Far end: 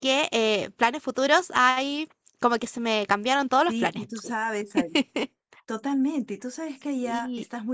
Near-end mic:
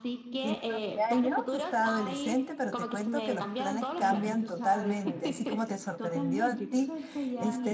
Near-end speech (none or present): present